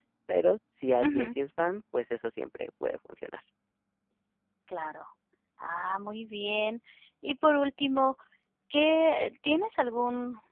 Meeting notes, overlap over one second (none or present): none